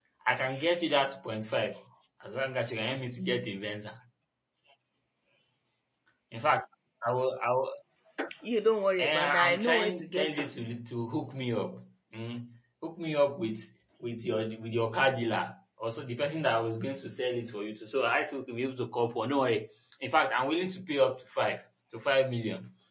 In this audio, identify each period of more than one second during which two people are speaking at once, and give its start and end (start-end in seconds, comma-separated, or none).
9.0-10.5